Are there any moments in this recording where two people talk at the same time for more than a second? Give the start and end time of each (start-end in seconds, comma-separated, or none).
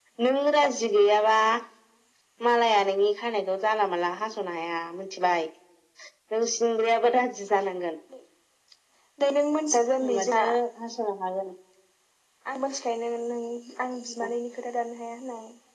none